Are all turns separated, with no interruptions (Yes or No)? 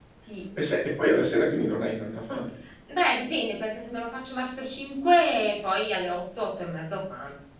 Yes